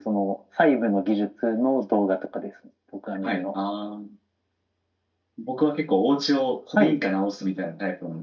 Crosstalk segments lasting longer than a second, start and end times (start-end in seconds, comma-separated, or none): none